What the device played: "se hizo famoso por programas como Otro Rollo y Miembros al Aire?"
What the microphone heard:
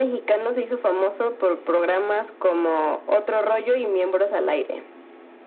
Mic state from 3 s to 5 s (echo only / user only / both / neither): echo only